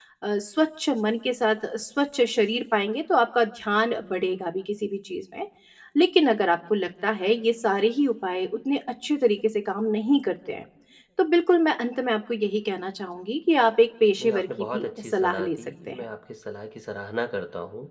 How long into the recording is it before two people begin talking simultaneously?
14 s

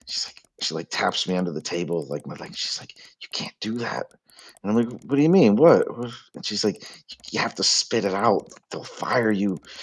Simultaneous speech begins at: none

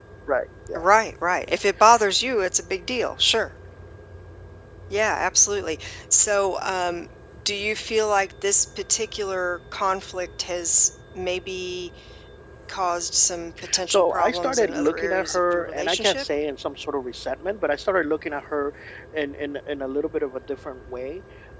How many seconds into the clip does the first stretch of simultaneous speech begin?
14 s

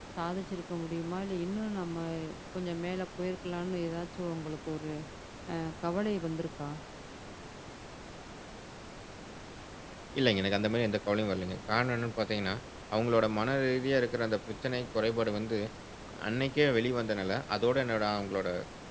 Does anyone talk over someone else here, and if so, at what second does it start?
none

